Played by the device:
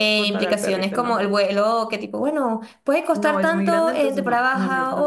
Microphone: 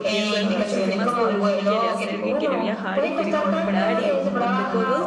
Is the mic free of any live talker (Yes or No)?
No